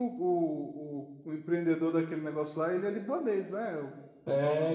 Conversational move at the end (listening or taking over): taking over